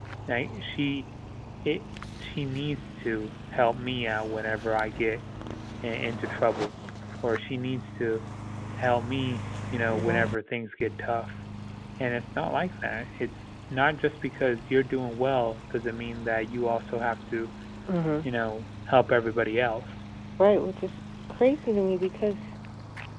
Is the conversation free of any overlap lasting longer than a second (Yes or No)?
Yes